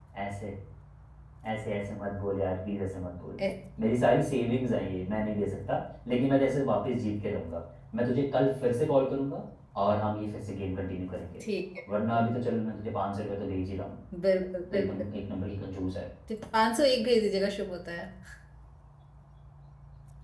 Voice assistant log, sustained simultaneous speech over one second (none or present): none